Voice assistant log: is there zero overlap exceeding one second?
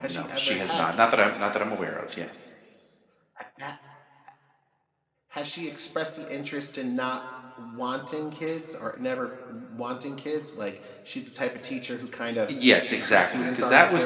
No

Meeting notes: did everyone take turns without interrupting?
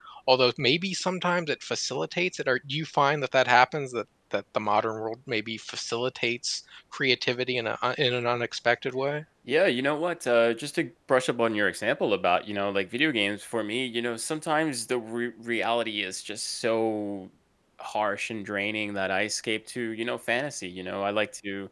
Yes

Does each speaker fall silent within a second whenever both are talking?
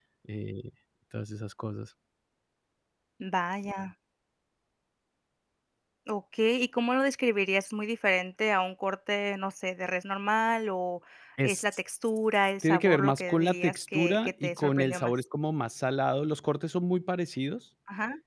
No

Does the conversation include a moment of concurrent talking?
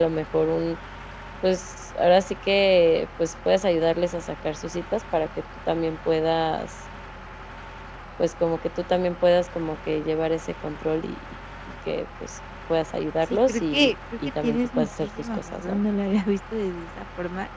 Yes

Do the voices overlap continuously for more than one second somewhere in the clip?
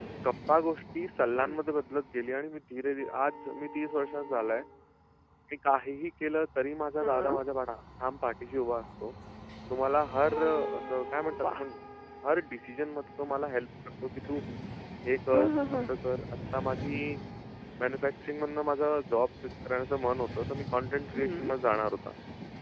No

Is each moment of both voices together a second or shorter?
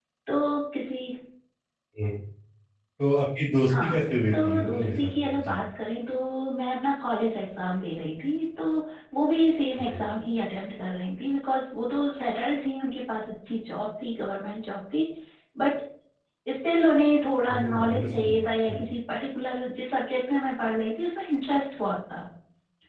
No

